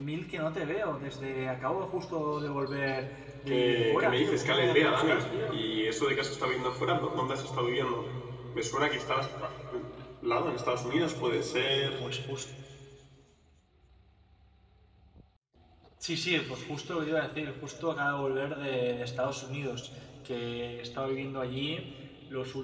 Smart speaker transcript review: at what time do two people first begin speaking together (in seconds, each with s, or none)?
3.5 s